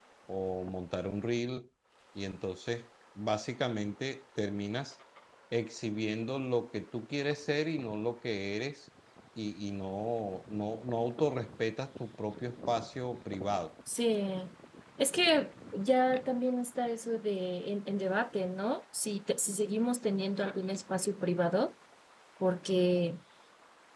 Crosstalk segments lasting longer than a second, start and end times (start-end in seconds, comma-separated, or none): none